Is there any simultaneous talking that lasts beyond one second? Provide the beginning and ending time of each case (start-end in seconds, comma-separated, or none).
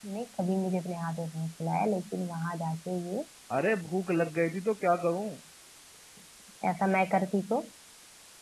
none